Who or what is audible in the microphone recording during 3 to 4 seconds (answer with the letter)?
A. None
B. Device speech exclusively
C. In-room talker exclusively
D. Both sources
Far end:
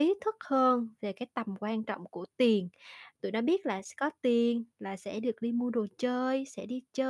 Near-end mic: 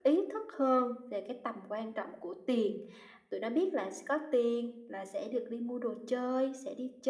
B